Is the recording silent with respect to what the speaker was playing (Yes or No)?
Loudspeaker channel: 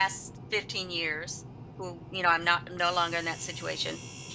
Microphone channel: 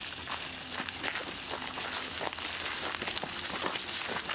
Yes